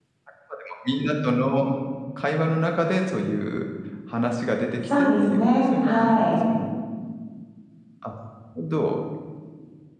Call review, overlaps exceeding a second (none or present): present